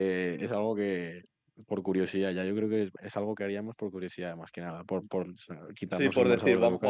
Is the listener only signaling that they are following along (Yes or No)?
No